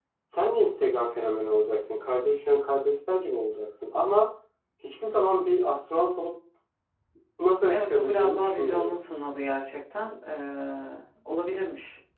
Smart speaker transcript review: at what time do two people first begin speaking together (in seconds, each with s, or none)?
7.7 s